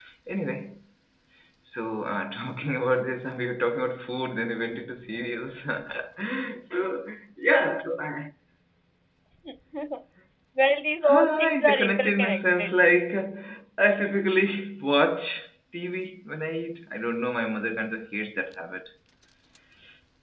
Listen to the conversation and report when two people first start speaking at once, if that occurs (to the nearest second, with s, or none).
11 s